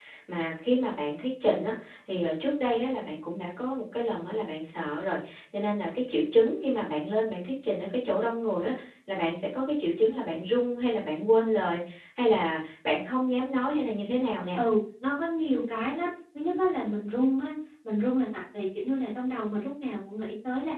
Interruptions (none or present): none